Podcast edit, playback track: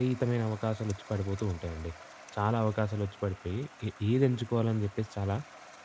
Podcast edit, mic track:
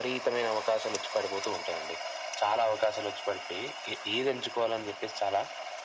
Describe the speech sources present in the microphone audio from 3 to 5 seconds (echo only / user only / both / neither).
echo only